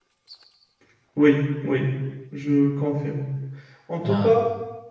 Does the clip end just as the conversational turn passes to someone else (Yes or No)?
No